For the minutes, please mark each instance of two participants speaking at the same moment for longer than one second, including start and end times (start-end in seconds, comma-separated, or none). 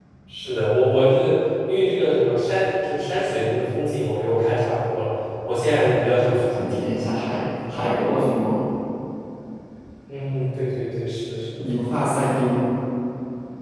none